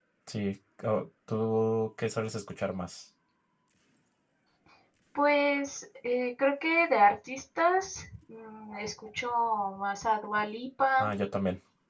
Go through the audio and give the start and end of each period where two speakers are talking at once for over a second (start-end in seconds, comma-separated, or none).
none